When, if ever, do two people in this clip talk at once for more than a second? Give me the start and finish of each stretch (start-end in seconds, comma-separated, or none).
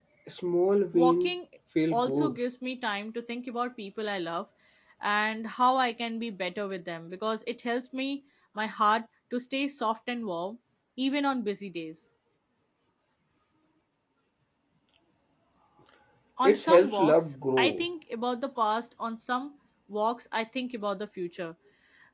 16.4-17.9